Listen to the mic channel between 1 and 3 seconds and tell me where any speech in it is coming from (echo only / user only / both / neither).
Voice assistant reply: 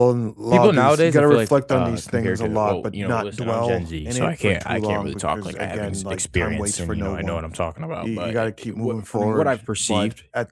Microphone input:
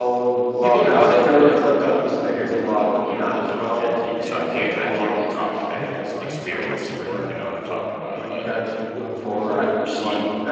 echo only